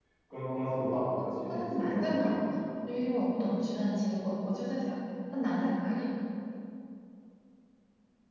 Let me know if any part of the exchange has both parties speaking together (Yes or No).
Yes